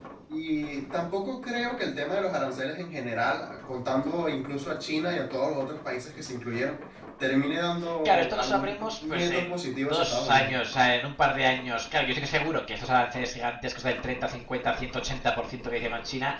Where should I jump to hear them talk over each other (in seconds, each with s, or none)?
7.8 s